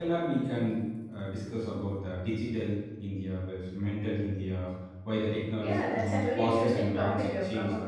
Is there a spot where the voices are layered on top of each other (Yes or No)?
Yes